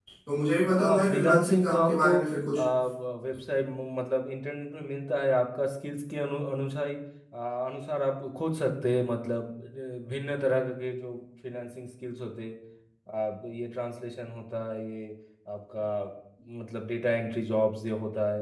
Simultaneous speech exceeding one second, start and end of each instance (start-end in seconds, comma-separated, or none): 0.7-2.2